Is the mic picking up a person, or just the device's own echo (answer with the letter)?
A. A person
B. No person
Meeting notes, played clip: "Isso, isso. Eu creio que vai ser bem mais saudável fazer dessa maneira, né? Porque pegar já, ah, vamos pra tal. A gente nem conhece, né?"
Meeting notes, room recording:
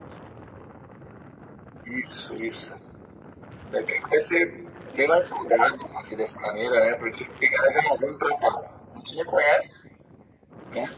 B